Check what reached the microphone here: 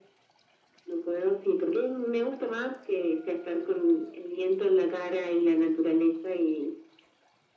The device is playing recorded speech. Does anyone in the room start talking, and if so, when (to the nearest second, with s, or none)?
none